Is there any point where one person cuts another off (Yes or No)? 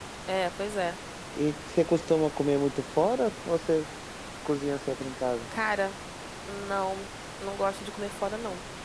No